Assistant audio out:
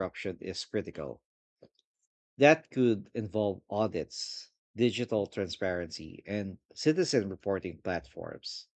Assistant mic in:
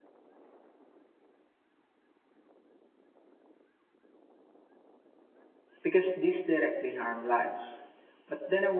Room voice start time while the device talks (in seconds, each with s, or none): 5.8 s